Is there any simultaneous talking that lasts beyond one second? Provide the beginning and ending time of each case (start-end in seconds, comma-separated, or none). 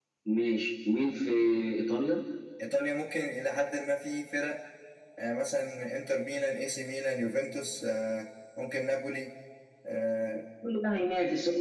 none